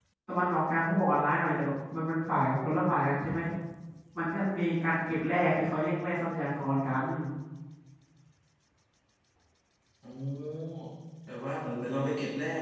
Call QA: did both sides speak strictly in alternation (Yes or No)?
Yes